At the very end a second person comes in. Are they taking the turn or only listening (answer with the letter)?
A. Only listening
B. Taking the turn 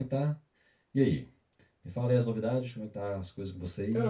B